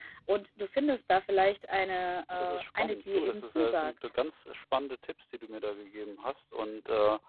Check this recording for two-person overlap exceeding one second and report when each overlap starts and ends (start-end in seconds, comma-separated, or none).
2.3-3.9